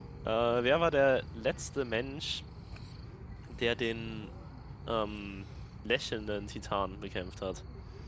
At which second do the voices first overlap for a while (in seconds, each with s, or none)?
none